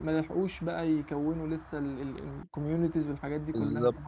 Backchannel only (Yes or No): No